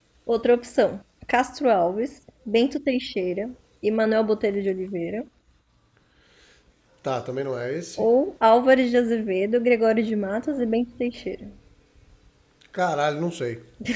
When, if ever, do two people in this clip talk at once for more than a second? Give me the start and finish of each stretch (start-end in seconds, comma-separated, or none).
none